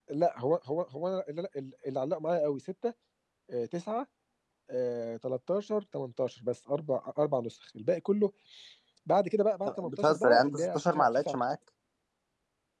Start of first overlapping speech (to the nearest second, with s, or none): 10 s